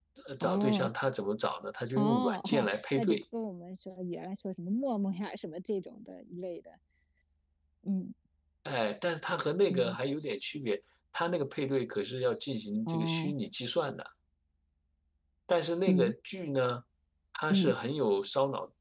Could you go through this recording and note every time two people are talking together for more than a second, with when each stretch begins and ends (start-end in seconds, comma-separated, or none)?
2.0-3.2